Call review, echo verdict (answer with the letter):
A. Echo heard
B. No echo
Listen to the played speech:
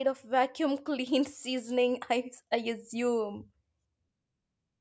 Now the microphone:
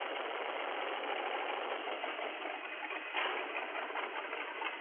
B